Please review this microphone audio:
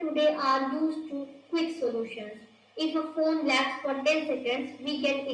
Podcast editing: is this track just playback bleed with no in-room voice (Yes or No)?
Yes